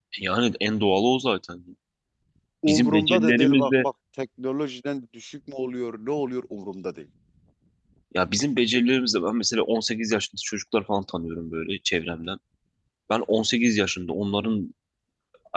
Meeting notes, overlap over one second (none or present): present